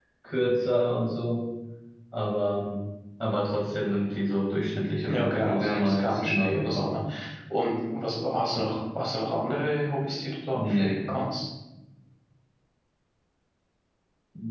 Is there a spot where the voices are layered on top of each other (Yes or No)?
Yes